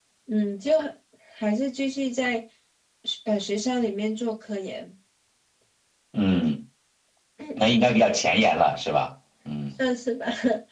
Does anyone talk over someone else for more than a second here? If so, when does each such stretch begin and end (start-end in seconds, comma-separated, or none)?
none